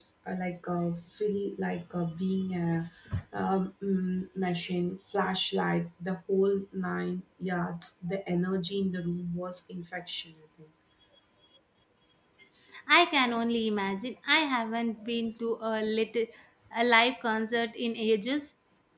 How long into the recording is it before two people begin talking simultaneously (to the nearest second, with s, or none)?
none